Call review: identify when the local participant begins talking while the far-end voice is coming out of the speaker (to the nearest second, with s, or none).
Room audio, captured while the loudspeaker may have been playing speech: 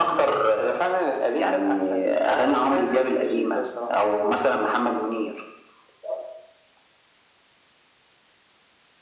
none